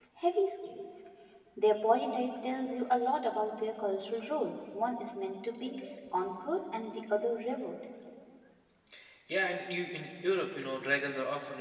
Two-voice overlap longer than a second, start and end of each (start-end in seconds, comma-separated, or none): none